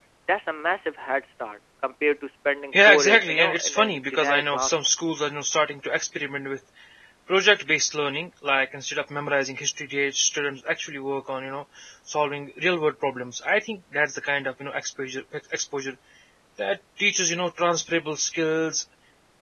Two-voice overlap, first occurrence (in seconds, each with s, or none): 2.7 s